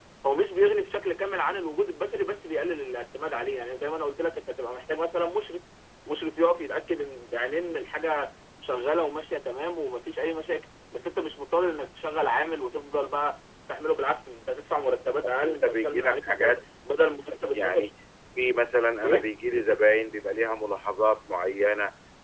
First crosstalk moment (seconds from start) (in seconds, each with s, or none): 15.2 s